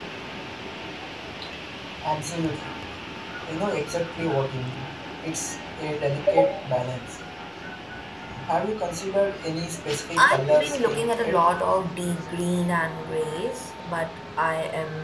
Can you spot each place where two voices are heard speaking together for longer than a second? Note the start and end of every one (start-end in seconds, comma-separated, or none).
10.2-11.4